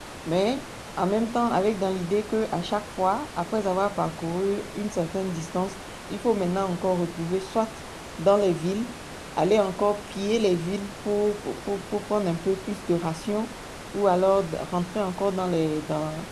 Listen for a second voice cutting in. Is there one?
No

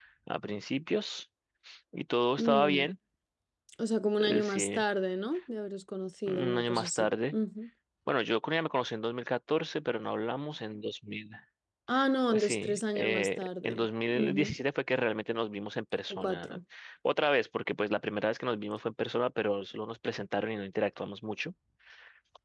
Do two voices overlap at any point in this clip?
Yes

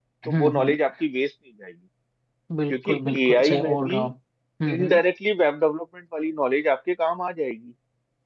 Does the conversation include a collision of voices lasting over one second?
Yes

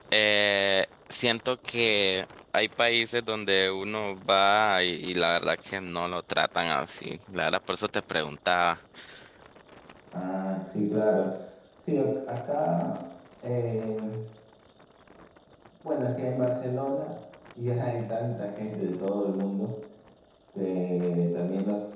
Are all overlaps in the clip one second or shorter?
Yes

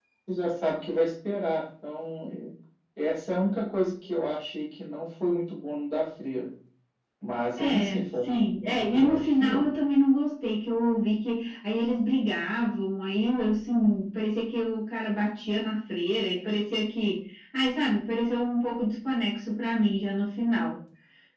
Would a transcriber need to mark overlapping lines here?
Yes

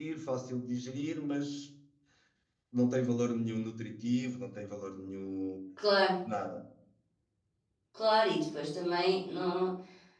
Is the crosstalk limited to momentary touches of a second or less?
Yes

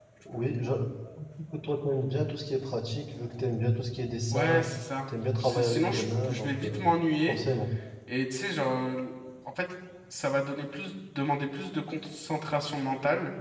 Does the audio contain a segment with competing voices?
Yes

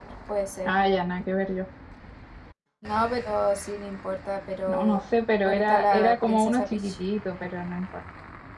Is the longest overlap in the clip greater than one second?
Yes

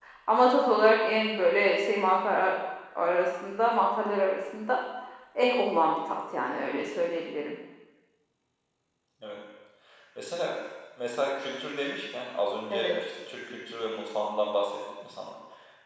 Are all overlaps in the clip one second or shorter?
Yes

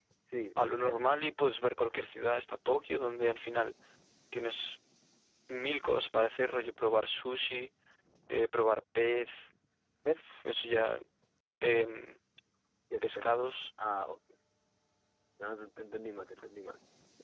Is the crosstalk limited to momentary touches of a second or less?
Yes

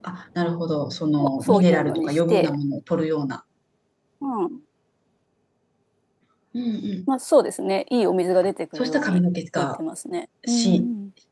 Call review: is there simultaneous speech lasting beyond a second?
Yes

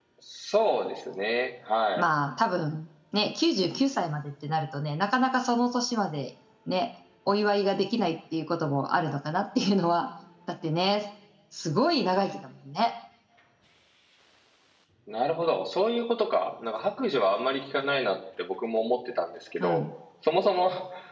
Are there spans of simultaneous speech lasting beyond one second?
No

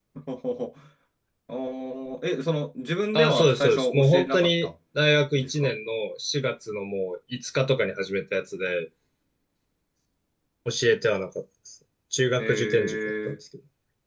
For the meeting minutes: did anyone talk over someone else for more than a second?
Yes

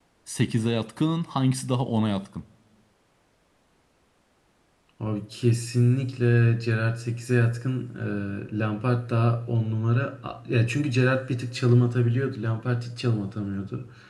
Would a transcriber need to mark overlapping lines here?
No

